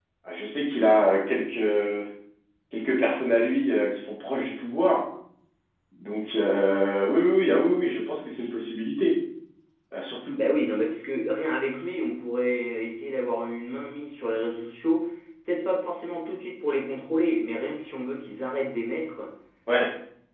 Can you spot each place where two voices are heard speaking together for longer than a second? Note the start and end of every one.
none

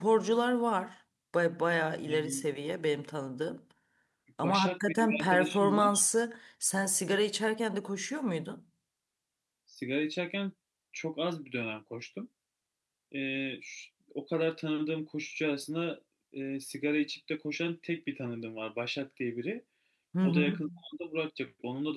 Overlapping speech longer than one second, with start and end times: 4.4-6.0

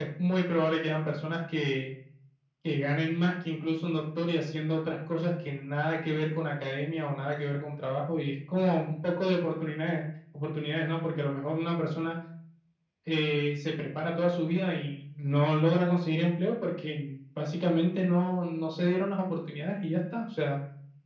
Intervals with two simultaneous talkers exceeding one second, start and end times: none

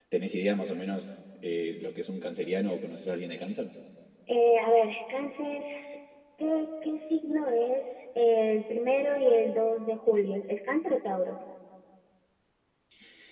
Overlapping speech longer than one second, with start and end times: none

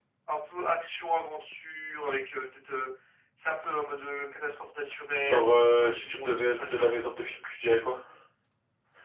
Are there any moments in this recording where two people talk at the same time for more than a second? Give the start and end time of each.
5.2-7.0

